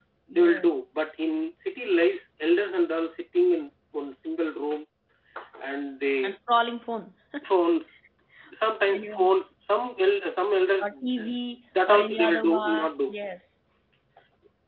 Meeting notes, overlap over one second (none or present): present